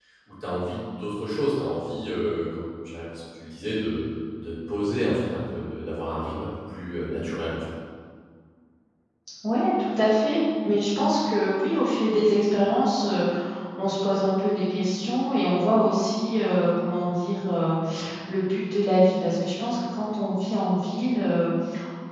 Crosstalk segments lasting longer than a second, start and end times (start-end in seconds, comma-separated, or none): none